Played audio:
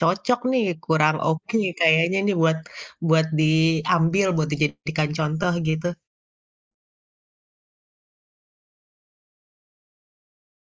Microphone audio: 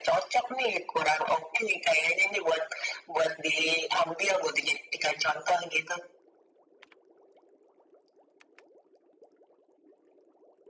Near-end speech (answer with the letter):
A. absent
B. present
A